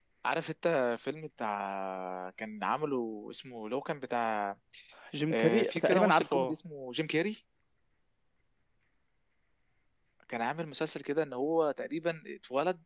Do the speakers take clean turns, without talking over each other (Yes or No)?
No